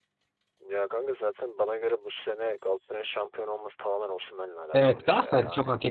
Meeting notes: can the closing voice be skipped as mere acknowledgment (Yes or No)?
No